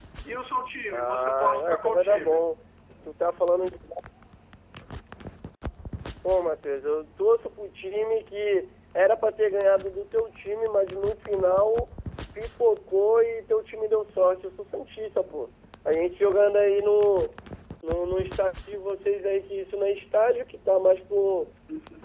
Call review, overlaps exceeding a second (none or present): present